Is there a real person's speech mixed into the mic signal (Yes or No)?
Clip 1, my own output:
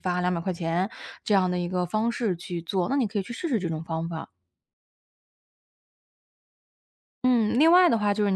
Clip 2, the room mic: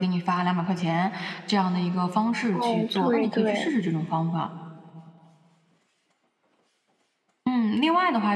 Yes